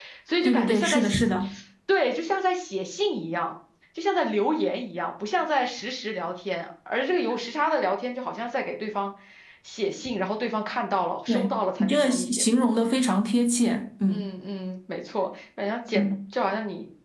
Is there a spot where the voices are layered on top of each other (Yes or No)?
Yes